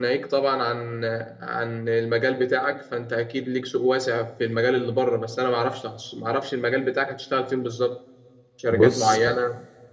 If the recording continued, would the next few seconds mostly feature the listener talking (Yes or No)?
No